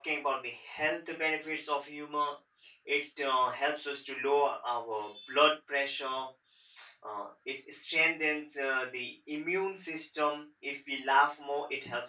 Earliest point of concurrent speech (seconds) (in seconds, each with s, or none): none